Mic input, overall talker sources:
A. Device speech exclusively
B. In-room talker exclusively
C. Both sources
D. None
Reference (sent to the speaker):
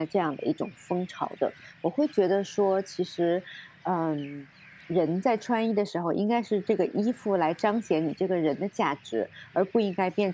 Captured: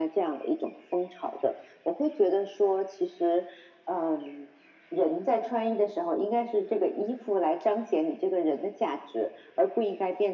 A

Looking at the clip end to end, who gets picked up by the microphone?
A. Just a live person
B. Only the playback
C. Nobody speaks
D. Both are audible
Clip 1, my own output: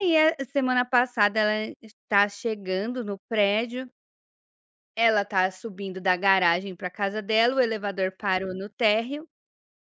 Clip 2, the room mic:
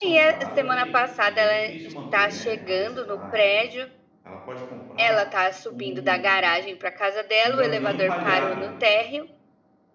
D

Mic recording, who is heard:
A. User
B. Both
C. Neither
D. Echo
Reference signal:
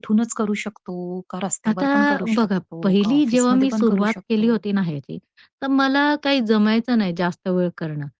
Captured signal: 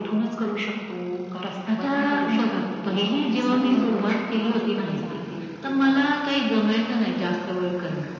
B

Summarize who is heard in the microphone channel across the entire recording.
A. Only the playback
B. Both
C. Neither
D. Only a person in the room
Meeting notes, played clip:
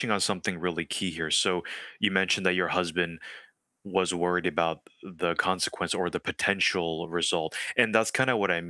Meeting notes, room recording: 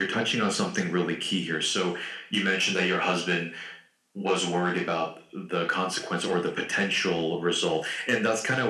A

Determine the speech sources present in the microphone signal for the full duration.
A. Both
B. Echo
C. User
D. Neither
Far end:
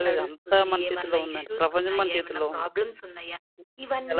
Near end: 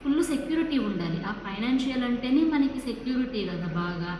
C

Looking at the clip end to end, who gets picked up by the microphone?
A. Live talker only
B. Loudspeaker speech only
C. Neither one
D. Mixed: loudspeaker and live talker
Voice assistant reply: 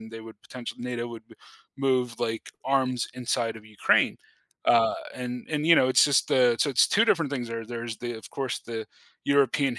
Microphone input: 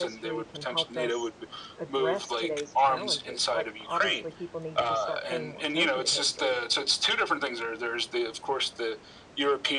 D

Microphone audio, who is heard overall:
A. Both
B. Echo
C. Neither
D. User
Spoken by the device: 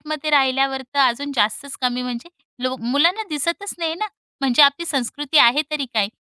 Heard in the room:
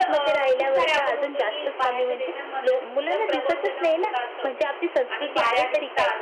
A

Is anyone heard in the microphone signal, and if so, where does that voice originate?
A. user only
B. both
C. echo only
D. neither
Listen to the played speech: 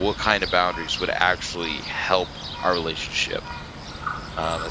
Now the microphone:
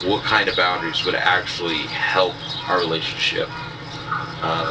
C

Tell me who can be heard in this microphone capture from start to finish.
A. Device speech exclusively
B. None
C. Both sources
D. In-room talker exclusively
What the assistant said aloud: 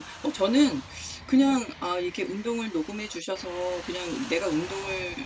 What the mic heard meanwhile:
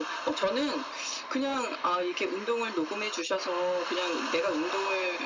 A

